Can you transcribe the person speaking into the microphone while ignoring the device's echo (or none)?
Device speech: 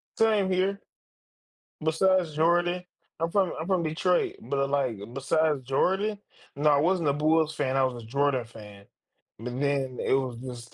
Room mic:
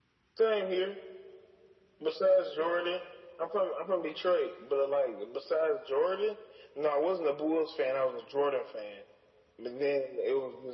none